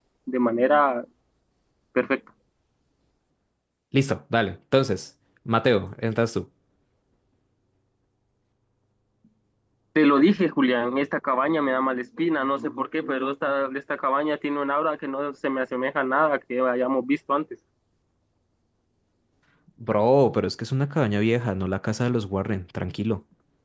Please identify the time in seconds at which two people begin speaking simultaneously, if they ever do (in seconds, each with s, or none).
none